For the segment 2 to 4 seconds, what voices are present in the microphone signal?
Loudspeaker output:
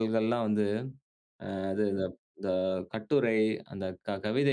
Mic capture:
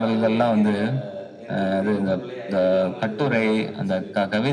both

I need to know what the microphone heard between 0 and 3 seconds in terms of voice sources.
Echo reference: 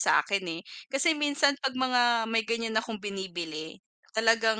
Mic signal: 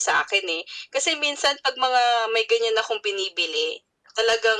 echo only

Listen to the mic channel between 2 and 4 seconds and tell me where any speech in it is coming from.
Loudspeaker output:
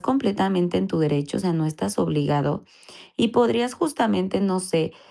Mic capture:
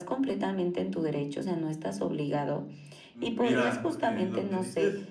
both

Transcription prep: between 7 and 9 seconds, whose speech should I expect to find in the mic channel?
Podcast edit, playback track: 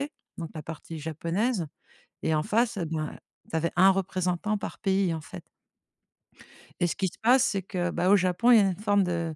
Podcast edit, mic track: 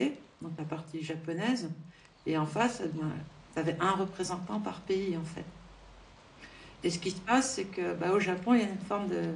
echo only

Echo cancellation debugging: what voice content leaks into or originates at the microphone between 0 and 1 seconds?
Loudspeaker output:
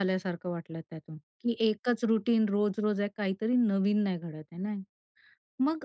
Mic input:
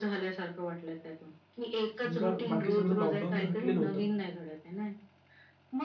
echo only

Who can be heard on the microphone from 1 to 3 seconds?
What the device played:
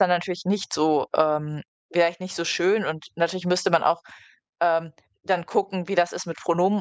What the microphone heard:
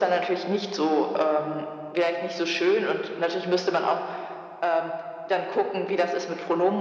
echo only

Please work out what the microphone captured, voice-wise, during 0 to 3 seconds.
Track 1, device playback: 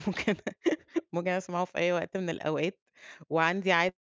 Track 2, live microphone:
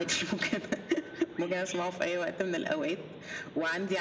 echo only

